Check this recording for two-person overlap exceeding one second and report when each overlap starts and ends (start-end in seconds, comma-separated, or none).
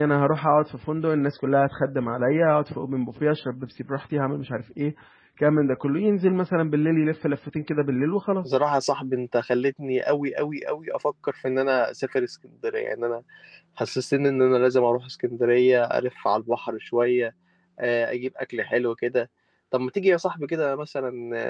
none